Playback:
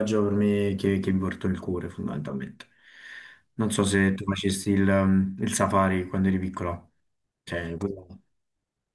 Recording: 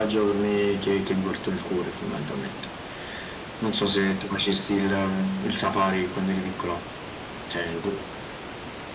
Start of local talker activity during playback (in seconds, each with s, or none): none